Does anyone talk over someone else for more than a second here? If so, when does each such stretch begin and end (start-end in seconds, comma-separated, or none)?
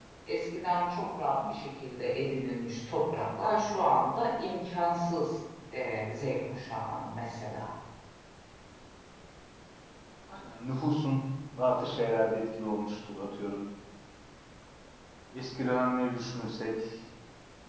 none